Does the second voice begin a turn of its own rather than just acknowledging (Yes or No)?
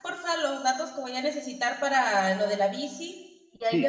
Yes